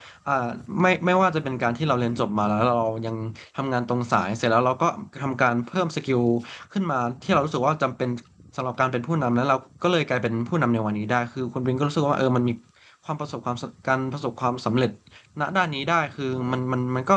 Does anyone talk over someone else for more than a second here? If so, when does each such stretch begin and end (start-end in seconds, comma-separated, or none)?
none